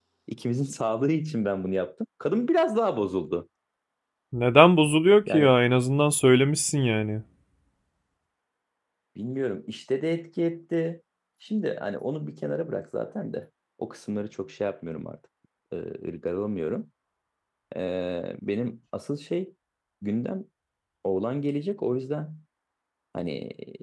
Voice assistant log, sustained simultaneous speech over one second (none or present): none